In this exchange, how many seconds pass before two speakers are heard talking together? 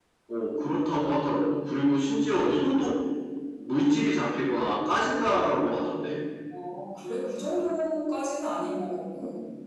none

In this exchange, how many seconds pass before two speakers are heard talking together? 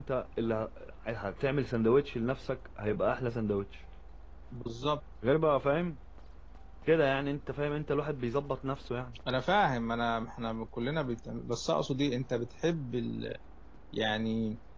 none

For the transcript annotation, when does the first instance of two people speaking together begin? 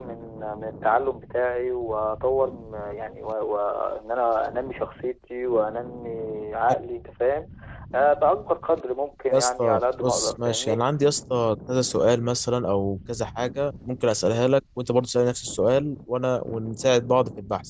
9.3 s

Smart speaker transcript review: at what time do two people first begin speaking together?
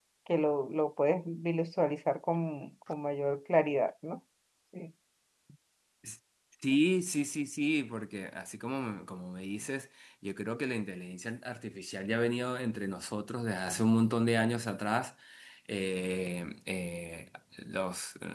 none

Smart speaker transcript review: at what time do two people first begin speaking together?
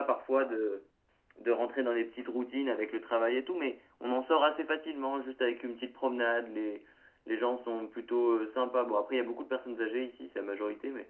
none

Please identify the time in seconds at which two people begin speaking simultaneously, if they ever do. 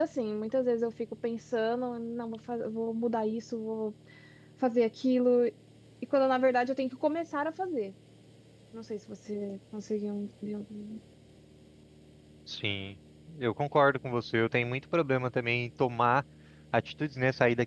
none

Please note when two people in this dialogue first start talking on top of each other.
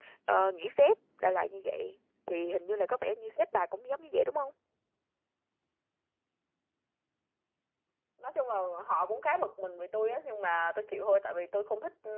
none

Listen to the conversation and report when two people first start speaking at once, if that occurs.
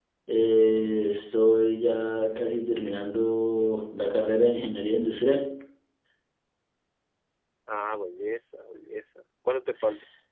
none

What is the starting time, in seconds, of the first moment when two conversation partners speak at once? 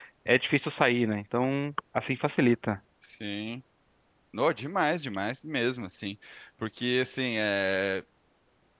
none

